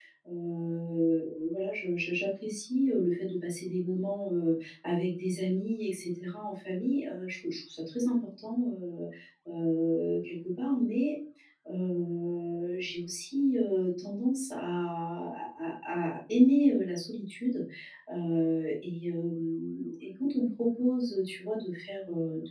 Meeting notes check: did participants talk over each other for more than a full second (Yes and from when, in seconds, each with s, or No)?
No